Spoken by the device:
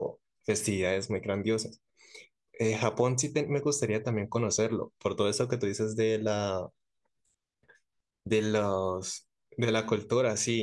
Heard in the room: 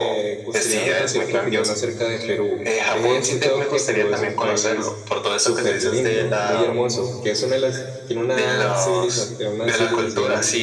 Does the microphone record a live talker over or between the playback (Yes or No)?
Yes